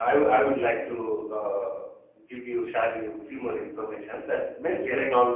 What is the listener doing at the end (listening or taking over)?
listening